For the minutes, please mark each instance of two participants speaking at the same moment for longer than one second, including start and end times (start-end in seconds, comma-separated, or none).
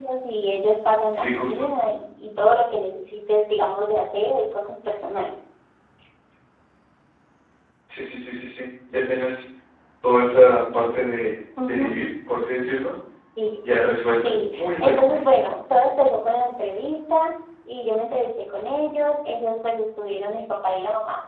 14.2-15.5